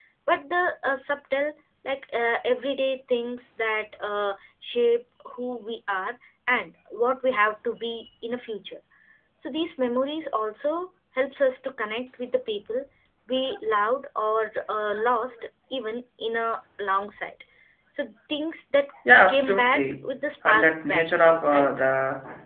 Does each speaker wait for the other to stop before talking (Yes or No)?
No